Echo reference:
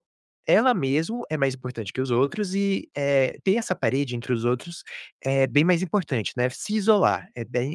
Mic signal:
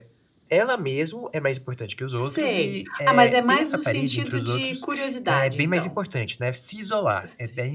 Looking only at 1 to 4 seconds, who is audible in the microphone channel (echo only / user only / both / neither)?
both